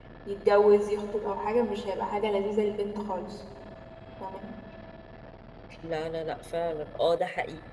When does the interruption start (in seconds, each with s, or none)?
none